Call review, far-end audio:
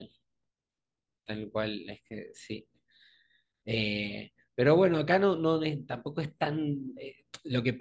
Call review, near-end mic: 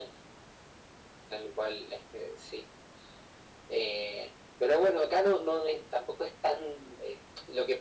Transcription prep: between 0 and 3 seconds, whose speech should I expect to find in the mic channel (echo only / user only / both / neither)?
echo only